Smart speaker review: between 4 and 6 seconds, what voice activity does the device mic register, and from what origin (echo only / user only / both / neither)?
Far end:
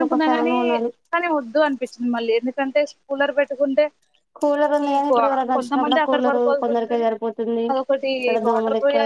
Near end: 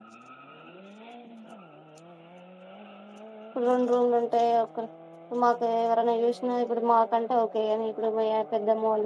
user only